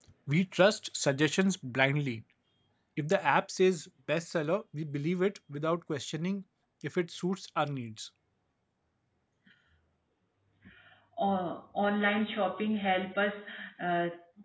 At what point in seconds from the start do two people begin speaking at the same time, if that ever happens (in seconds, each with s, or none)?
none